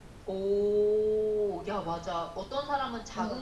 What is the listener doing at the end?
listening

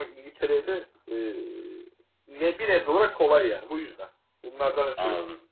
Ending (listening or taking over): taking over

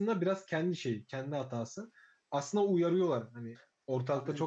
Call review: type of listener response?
listening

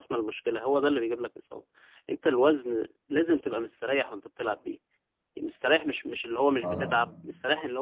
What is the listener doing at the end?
listening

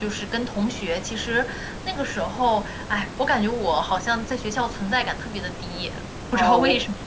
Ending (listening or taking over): taking over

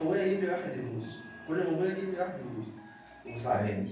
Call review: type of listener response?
listening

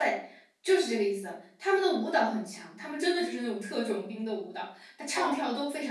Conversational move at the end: listening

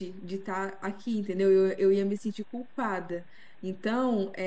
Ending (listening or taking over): listening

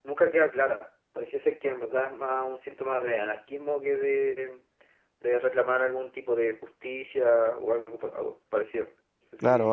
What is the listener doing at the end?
taking over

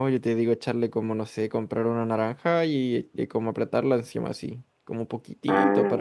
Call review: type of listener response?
listening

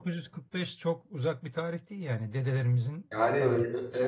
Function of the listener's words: taking over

